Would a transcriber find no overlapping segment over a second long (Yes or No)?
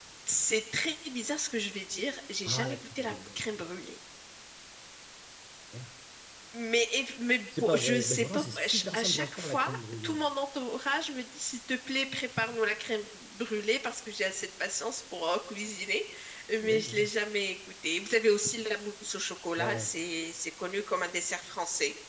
No